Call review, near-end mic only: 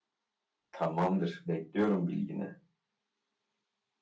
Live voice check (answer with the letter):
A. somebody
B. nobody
A